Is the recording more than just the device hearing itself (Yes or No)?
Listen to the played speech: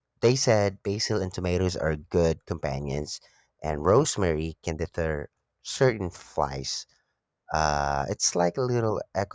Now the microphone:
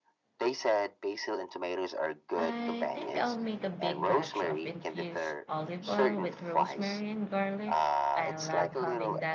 Yes